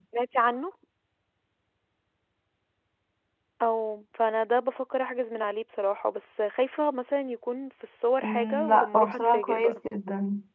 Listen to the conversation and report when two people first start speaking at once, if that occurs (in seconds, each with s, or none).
8.2 s